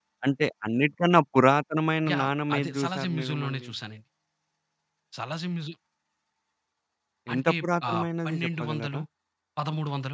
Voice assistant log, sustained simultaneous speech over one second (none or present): present